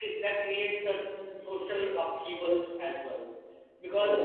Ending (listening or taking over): listening